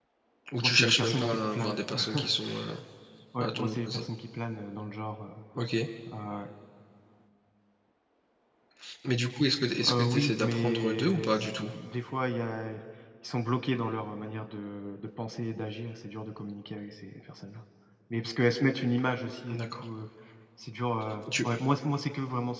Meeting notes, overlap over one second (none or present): present